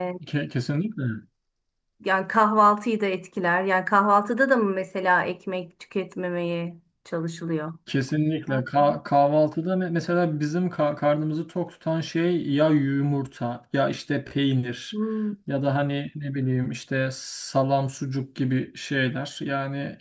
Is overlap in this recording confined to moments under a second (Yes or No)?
Yes